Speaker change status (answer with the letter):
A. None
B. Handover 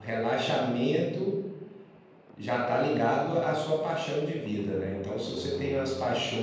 A